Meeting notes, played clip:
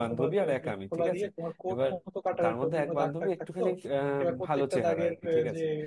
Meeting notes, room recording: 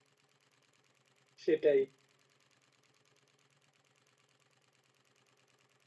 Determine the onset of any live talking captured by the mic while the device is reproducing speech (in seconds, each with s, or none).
1.4 s